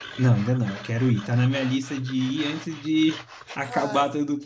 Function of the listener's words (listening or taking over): listening